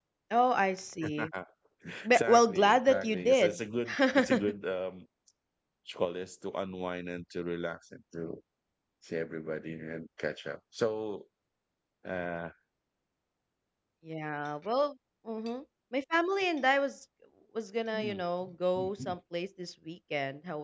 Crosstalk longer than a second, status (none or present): present